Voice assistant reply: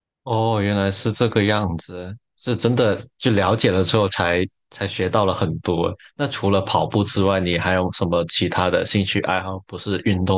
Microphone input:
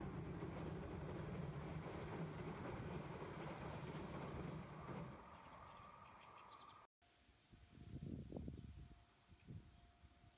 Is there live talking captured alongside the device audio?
No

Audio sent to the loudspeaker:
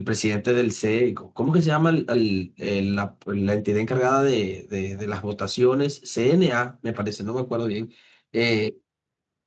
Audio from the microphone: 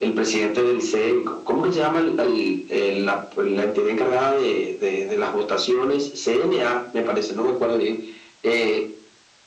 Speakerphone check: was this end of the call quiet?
Yes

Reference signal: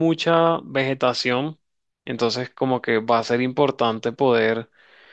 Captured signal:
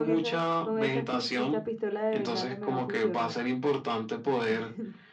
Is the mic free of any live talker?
No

